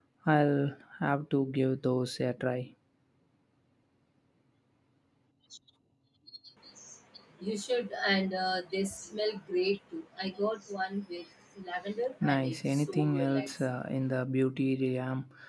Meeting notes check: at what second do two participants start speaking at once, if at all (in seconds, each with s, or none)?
12.2 s